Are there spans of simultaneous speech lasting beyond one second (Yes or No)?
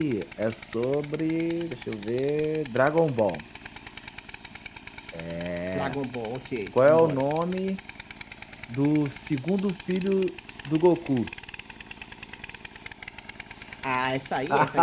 No